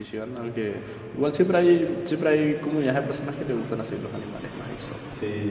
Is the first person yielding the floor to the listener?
Yes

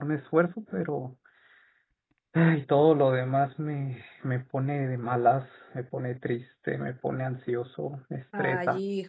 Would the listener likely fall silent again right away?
No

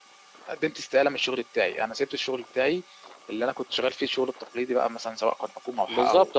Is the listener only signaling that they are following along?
No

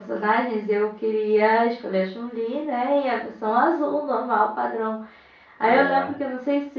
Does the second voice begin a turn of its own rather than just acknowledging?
No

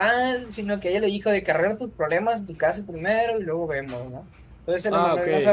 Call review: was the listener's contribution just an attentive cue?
Yes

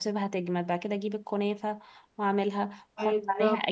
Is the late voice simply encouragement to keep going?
Yes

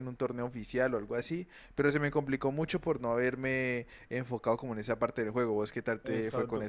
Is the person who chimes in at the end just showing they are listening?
No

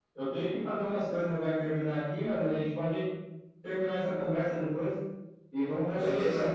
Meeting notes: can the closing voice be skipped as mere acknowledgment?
No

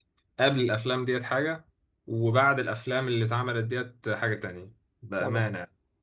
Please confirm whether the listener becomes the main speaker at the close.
Yes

